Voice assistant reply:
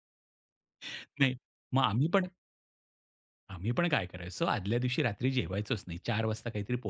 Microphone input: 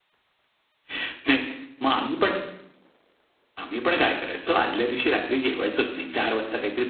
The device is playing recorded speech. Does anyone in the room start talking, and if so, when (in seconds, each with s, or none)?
none